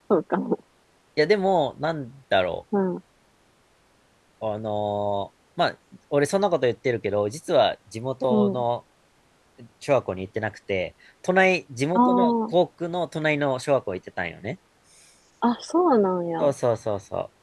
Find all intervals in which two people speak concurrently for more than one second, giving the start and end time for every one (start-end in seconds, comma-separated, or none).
none